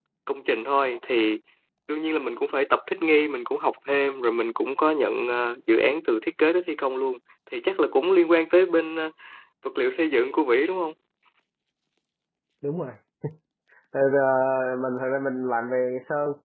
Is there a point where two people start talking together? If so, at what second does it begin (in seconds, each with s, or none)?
none